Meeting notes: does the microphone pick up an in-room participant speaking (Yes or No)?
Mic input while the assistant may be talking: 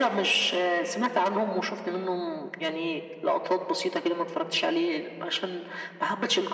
No